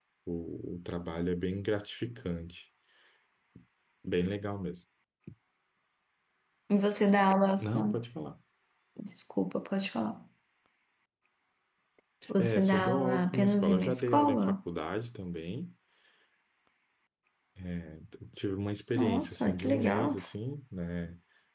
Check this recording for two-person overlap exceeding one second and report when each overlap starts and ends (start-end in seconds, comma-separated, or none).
12.4-14.6, 19.0-20.2